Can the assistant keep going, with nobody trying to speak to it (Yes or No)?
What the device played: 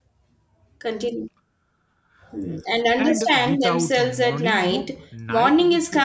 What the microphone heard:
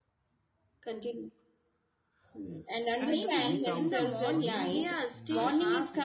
No